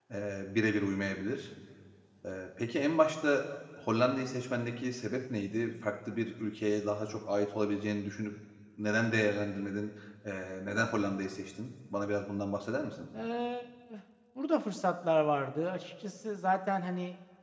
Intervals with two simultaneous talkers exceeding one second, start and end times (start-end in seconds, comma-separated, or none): none